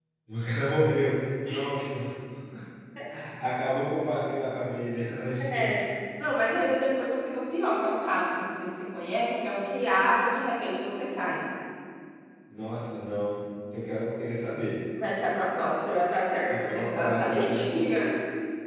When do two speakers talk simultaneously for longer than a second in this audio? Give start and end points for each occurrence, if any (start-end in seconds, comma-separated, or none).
16.5-17.8